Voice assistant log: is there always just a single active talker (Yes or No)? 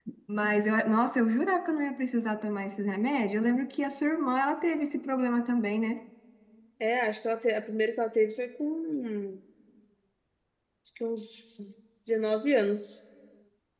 Yes